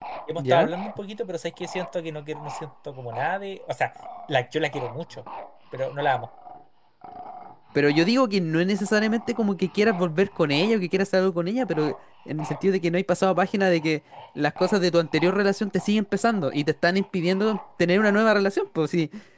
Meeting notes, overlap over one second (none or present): none